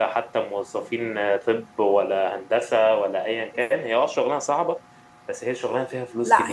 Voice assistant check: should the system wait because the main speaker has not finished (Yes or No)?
No